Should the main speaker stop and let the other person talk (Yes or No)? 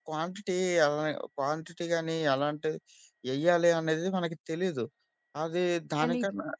No